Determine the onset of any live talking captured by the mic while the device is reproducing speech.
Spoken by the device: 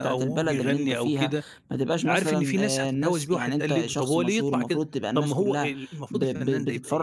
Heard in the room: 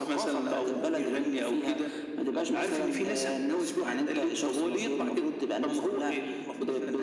none

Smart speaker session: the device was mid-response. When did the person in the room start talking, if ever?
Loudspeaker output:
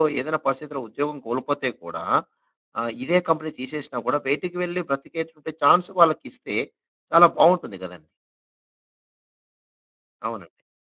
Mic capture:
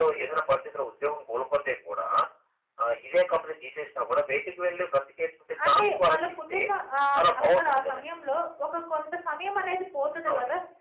5.7 s

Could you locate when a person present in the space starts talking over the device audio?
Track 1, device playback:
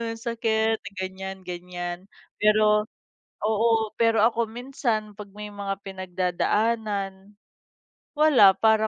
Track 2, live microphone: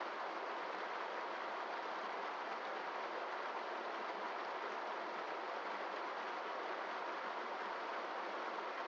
none

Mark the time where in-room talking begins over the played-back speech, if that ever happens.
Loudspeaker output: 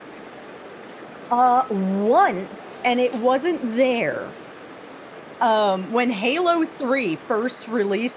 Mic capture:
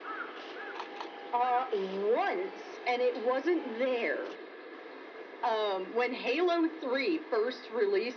none

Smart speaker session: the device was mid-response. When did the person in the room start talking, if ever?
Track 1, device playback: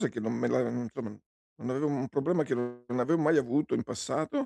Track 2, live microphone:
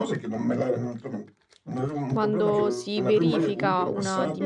2.1 s

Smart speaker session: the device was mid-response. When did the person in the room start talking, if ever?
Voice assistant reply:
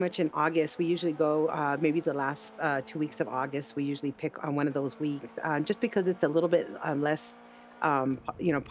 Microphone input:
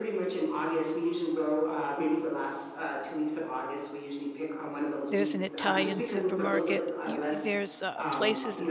5.1 s

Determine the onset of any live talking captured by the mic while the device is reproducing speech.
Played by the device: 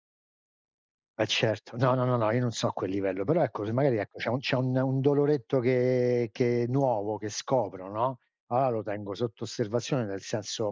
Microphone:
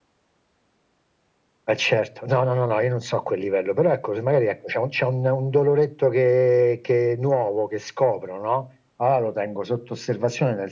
none

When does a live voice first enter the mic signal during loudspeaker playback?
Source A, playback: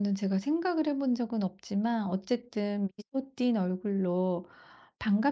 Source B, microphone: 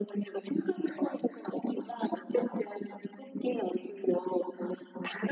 none

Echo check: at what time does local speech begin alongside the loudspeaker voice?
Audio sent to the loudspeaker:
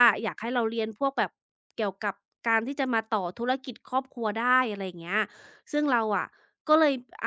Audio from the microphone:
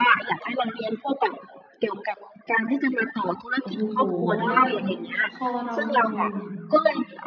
3.6 s

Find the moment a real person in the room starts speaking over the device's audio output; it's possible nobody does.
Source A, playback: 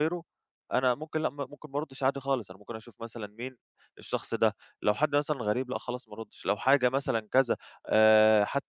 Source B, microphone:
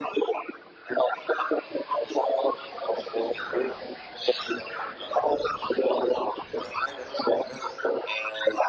none

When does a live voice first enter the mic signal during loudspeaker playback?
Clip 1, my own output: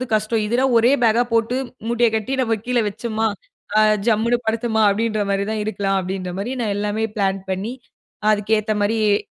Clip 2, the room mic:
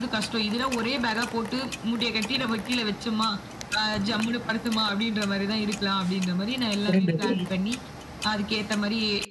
6.9 s

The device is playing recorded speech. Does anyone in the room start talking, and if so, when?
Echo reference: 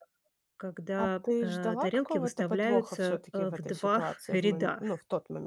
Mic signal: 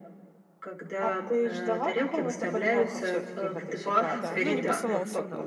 4.1 s

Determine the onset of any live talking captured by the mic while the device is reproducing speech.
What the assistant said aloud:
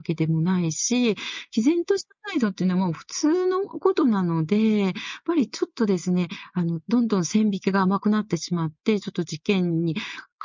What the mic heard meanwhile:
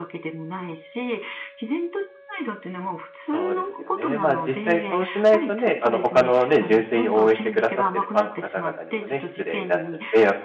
3.3 s

